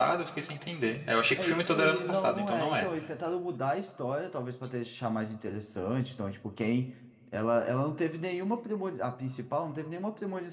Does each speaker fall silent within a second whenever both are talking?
No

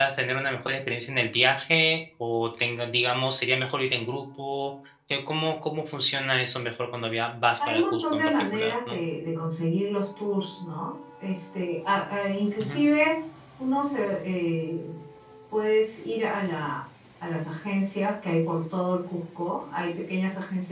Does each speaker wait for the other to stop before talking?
No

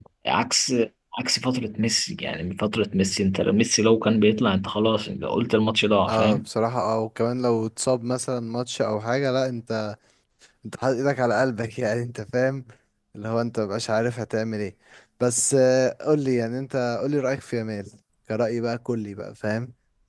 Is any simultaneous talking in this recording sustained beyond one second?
No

